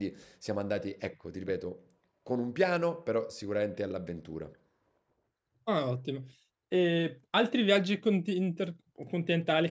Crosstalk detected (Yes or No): No